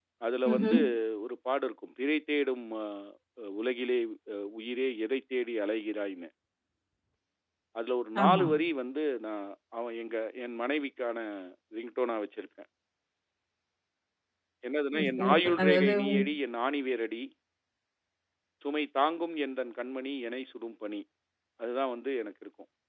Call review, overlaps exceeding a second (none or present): present